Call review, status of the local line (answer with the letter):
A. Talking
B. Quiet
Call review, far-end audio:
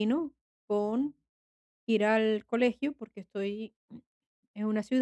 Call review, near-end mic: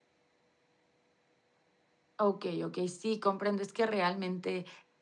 A